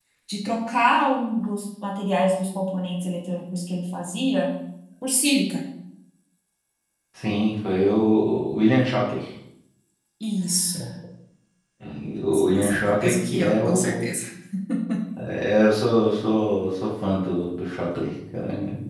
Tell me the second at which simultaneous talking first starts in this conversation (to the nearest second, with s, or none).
12 s